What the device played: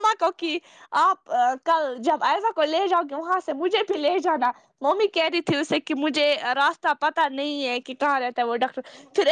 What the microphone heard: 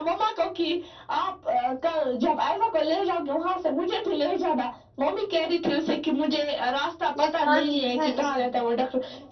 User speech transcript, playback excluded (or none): یہ کالٹیز ہے اس میں